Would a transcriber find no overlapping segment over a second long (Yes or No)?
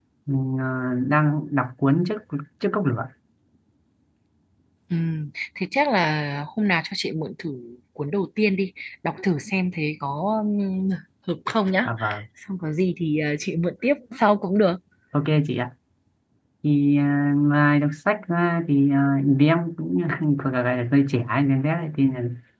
Yes